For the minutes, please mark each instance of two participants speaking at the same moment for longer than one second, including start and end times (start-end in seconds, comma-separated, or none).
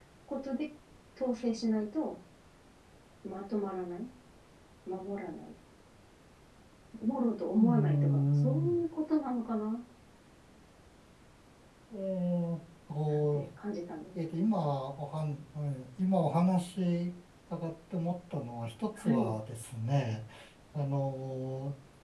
7.6-8.8